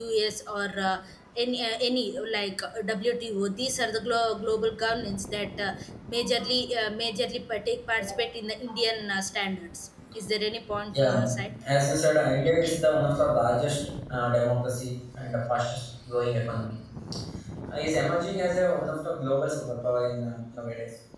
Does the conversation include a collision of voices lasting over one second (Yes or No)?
No